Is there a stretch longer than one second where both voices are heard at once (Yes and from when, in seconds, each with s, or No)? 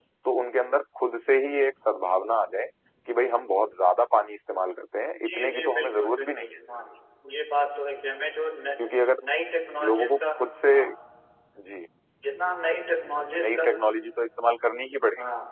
Yes, from 5.2 s